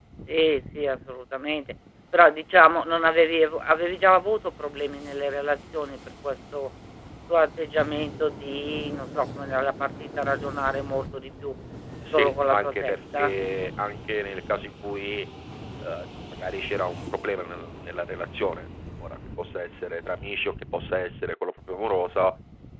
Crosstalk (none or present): present